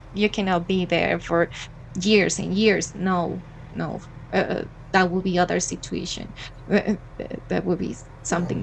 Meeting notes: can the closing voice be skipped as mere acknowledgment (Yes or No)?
Yes